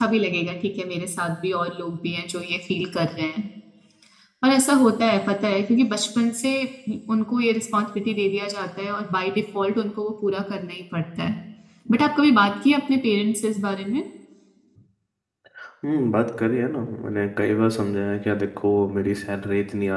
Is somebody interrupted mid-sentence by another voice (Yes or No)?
No